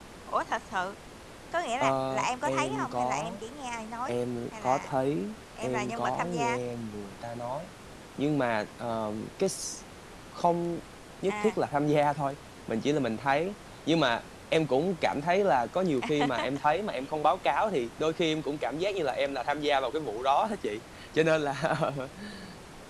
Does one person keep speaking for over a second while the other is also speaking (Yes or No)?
Yes